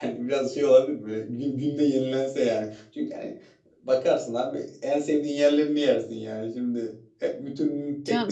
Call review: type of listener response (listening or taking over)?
taking over